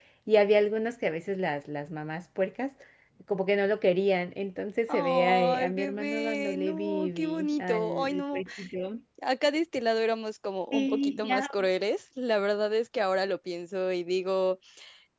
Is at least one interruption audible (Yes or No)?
Yes